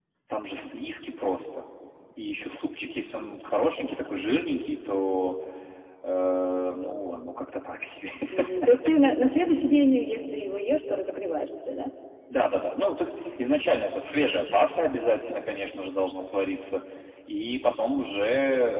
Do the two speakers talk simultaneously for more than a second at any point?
No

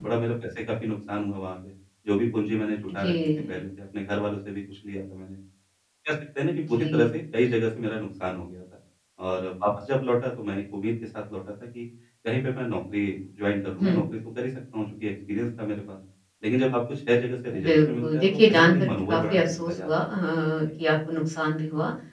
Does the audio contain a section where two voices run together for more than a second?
Yes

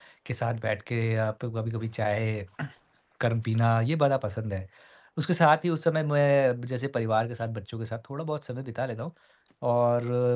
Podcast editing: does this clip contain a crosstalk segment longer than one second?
No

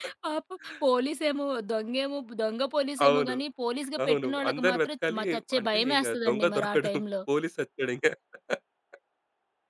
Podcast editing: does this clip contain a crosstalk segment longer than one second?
Yes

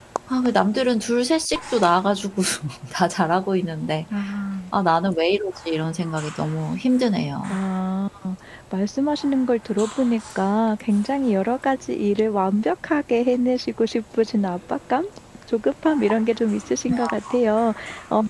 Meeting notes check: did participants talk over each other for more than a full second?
No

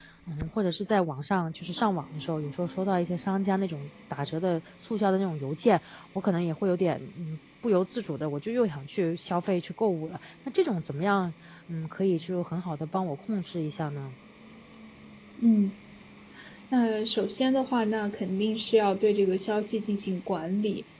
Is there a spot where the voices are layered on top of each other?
No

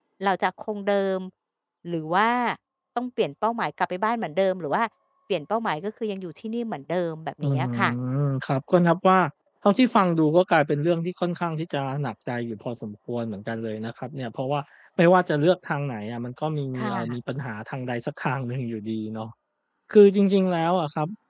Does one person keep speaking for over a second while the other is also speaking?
No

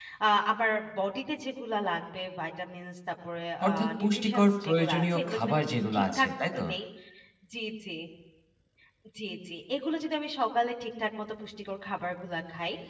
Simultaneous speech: Yes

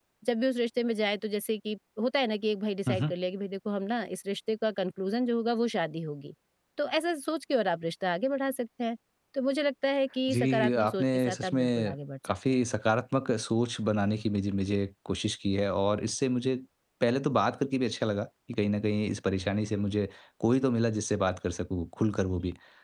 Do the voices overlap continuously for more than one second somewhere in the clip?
Yes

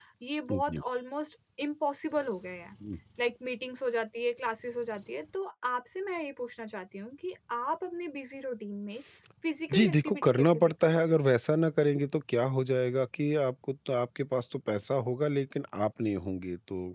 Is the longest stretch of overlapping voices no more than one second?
No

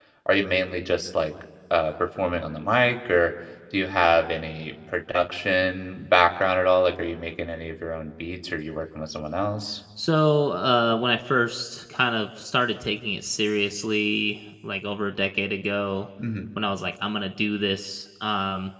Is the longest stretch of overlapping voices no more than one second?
Yes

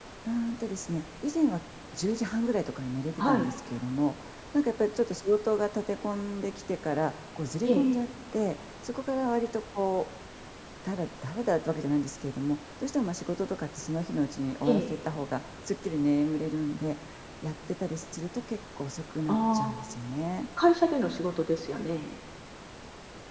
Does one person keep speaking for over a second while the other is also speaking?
No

